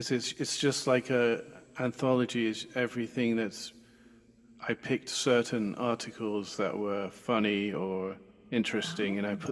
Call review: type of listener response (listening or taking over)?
listening